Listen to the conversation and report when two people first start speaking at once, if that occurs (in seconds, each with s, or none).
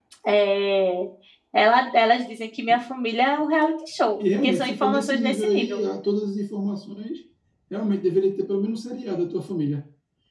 4.2 s